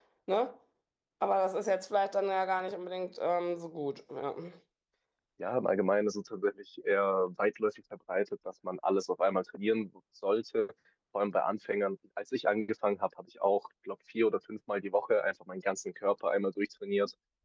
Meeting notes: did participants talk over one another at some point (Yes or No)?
No